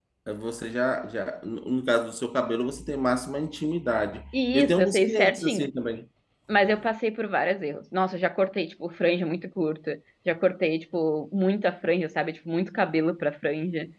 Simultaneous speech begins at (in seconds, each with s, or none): 4.3 s